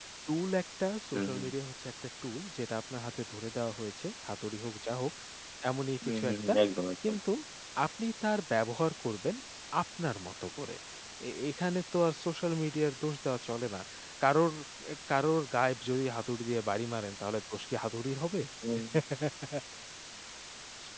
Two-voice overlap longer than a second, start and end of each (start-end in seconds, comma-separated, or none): none